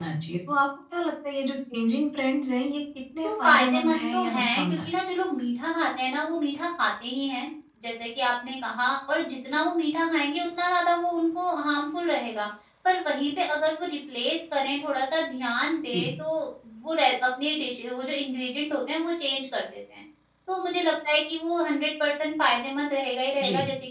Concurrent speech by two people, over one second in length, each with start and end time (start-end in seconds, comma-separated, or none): 3.2-4.8